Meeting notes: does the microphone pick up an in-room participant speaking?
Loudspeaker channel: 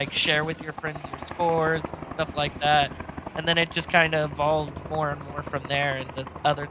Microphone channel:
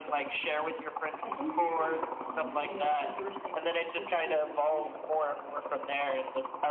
Yes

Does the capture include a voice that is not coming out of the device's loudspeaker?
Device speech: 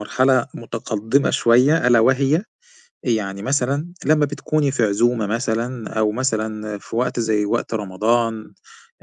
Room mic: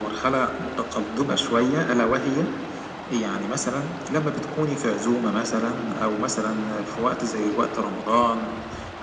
No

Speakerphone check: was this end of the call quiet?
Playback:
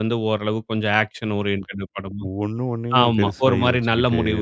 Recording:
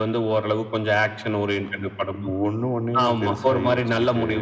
Yes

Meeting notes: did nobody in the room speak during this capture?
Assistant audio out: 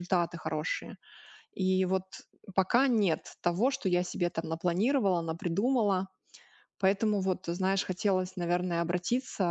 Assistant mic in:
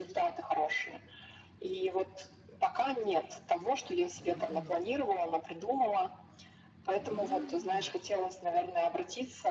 Yes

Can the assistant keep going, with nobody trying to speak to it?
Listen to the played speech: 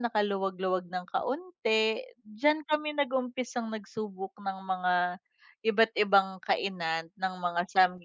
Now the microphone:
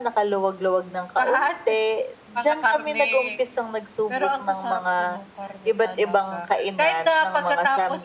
No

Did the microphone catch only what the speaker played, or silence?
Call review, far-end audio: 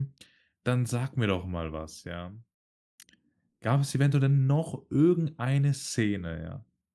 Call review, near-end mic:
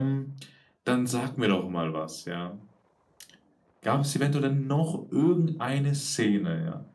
Yes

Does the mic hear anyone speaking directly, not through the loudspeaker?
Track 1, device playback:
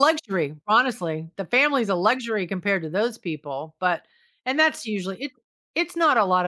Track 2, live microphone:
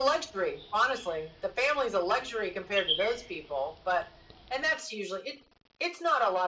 No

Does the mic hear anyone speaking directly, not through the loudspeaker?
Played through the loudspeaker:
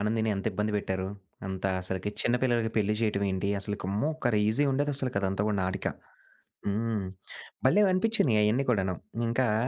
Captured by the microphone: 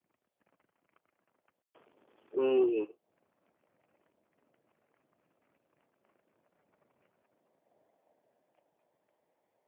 Yes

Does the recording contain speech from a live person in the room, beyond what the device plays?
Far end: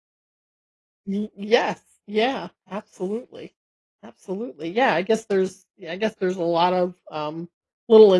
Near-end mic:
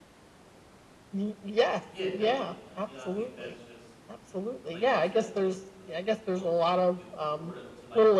Yes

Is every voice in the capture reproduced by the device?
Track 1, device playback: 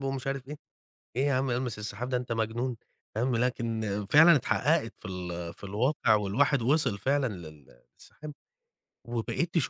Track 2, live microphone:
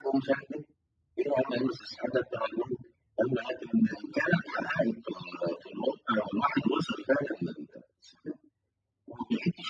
Yes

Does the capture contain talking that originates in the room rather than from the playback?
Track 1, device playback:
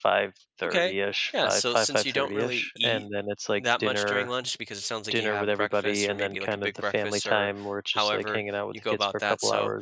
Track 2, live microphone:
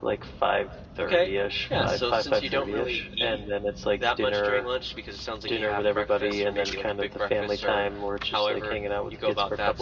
No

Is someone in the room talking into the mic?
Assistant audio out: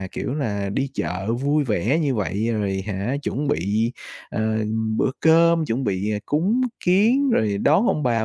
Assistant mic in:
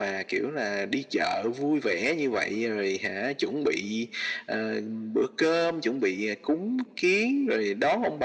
No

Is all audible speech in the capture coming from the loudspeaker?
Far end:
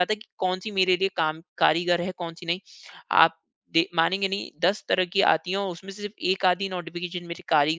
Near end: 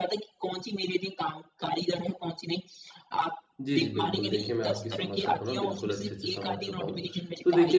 No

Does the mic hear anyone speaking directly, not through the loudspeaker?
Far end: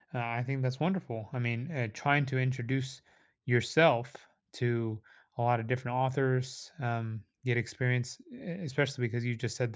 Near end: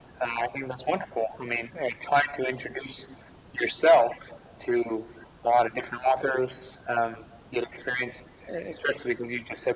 No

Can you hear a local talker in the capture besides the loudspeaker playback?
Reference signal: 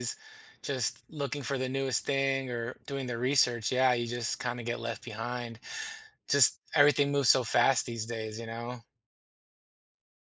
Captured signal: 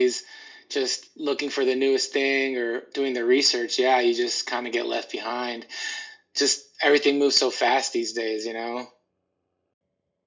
No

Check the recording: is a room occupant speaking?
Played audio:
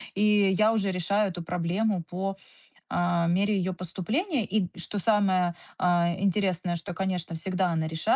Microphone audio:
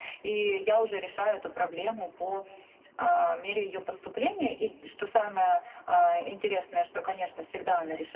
No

